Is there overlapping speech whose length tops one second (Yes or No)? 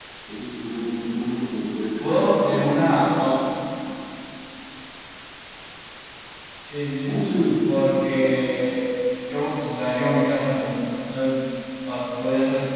Yes